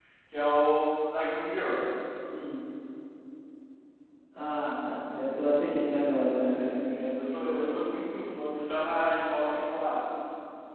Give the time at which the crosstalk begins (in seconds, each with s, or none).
6.4 s